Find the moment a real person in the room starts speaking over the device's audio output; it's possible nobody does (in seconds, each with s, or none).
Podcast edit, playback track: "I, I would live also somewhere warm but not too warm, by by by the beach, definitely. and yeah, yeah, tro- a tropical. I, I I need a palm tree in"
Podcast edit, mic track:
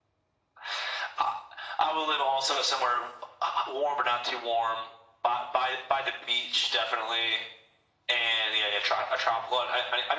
none